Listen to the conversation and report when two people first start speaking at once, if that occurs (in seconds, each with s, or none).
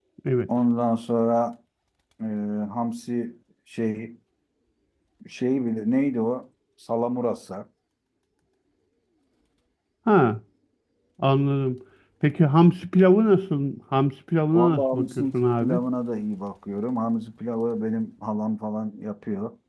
14.5 s